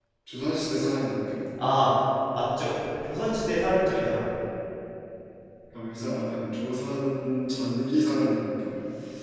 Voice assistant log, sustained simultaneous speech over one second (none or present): none